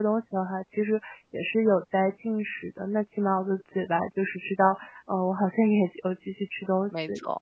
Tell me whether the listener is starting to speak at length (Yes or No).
Yes